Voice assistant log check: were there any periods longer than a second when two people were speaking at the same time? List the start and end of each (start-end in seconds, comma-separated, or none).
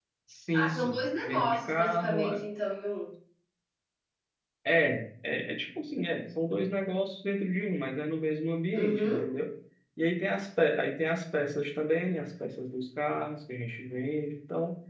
0.5-2.5